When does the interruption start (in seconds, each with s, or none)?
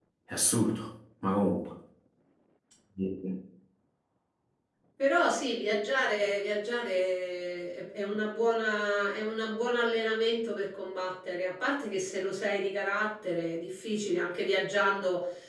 none